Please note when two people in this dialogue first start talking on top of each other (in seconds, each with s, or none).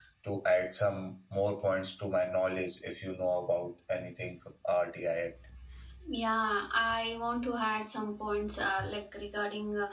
none